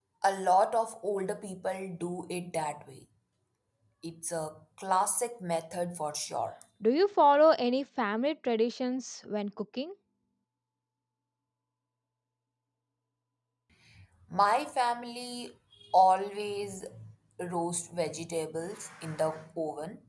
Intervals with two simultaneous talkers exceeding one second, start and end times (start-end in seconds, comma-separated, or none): none